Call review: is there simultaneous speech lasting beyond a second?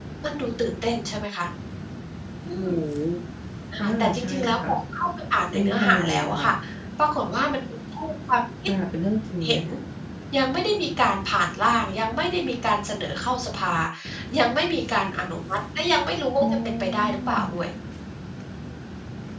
Yes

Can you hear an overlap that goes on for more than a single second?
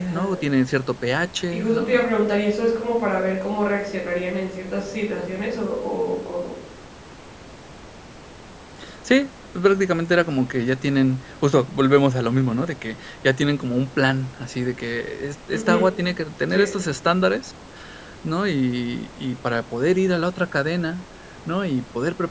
No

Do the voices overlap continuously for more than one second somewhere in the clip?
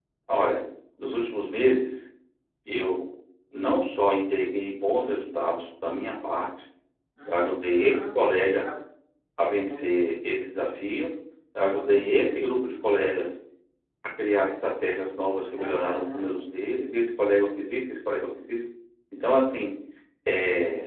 Yes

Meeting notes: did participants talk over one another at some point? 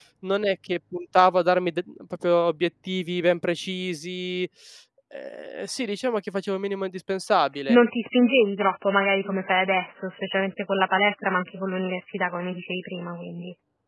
No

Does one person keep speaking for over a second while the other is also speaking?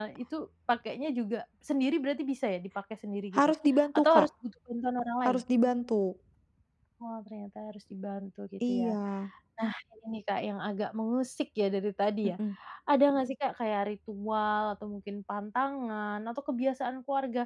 No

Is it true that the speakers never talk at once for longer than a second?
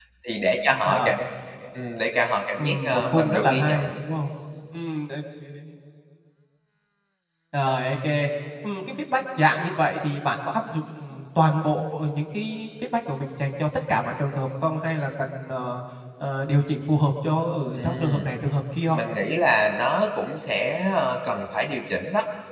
No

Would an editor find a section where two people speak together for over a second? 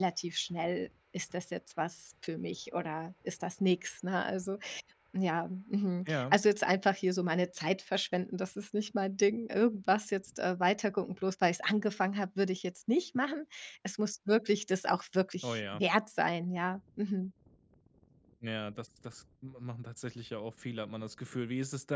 No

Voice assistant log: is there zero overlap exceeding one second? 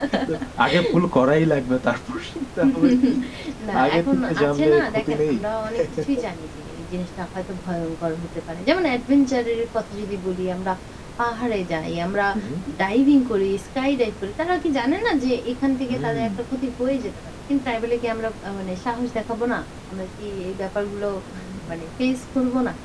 No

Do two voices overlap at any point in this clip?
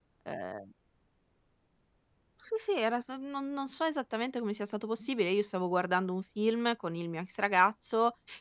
No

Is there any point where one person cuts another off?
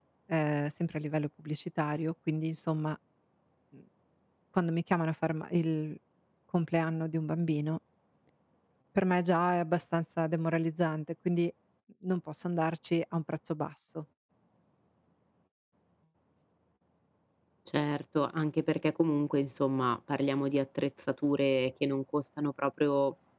No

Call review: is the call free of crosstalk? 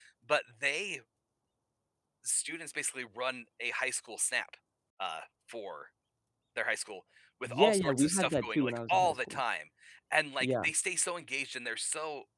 No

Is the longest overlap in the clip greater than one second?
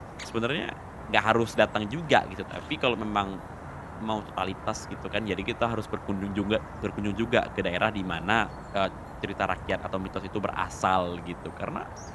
No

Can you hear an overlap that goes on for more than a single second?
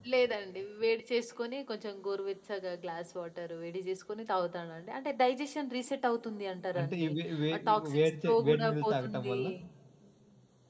Yes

